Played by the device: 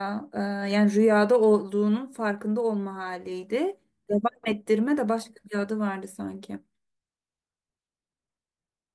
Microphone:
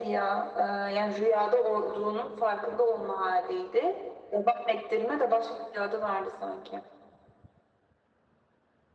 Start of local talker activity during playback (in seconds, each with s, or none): none